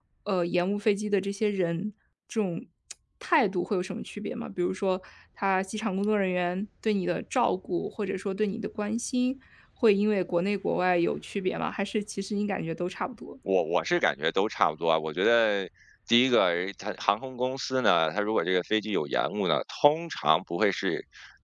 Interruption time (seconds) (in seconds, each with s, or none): none